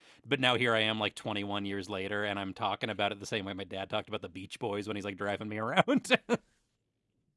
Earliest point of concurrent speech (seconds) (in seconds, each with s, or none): none